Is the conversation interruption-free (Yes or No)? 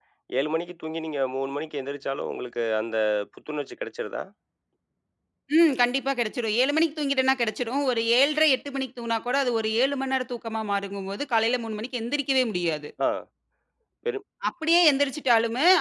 Yes